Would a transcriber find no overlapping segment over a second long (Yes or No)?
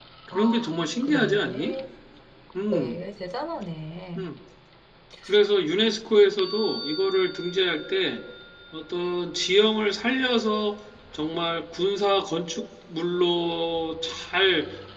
No